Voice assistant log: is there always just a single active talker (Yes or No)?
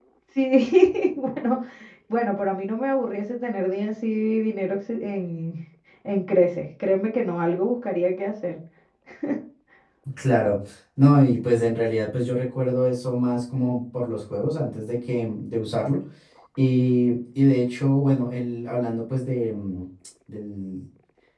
Yes